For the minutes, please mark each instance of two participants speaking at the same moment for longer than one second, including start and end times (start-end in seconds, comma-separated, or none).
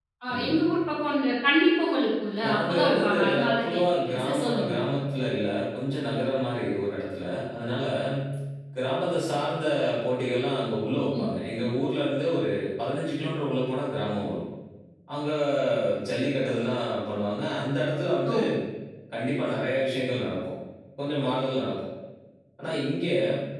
2.5-4.8